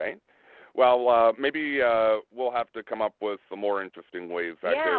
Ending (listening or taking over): taking over